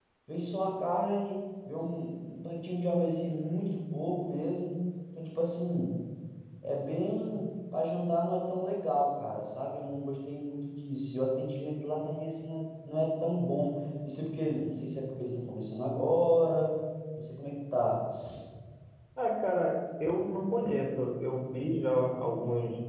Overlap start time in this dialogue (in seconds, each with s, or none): none